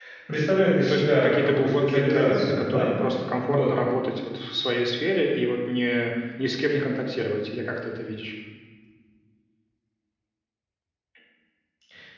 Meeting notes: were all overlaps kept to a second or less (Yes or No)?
No